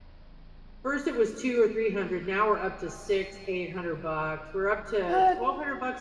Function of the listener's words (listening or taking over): listening